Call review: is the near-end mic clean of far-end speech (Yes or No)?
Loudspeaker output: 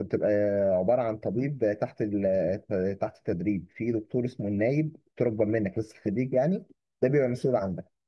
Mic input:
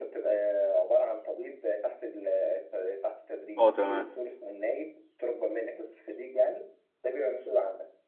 No